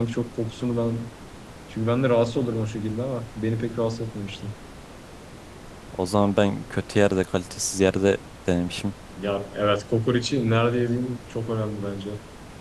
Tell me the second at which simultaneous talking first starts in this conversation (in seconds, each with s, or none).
none